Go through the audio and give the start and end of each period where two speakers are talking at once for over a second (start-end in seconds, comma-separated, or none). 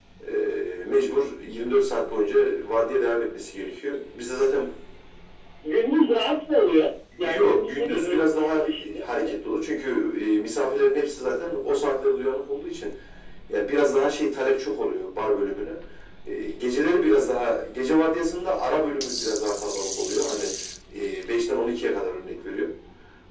7.2-9.3